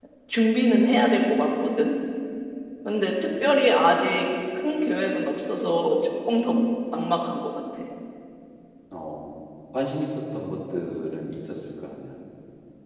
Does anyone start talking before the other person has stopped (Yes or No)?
No